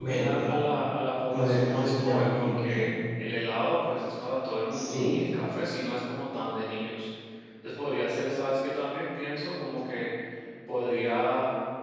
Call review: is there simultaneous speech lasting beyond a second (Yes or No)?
Yes